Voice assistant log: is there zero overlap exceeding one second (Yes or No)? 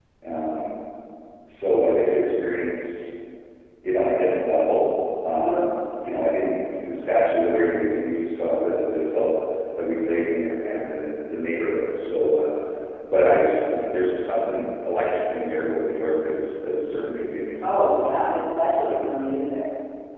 Yes